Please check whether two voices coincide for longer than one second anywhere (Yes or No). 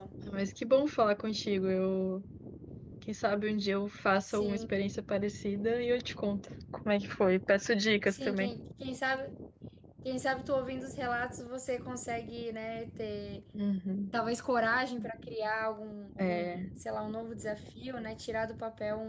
No